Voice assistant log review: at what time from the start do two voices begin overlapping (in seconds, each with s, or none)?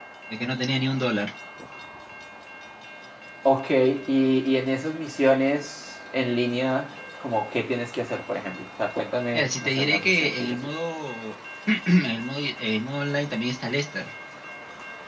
9.3 s